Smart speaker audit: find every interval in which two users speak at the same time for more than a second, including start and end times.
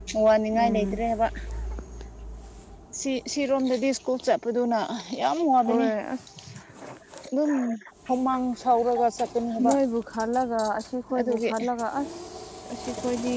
none

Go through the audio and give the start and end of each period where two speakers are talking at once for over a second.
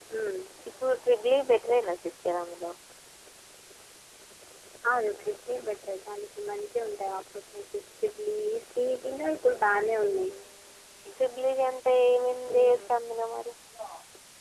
none

